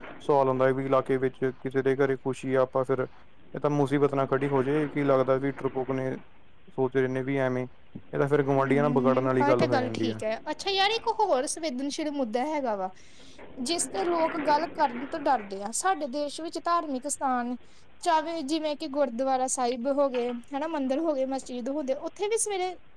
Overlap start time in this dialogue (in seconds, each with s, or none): 8.6 s